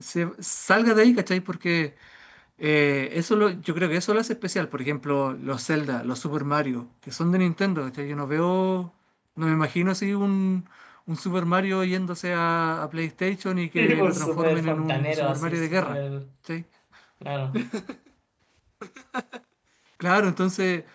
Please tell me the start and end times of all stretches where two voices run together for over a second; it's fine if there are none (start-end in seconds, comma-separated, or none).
13.8-16.0